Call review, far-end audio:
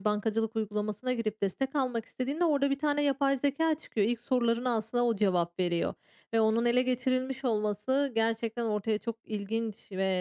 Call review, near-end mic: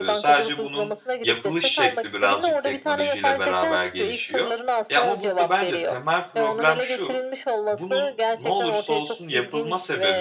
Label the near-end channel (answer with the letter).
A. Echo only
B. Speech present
B